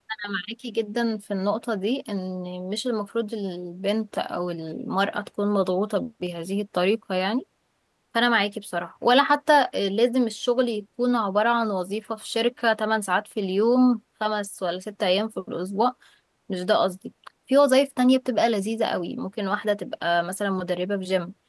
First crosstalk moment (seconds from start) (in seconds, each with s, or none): none